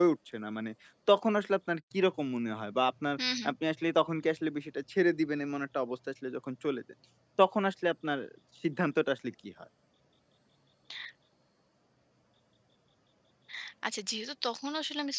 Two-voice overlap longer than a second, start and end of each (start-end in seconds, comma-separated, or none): none